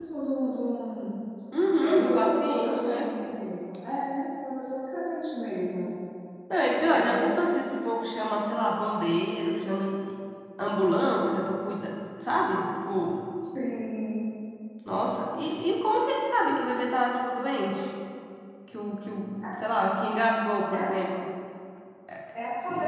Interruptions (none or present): present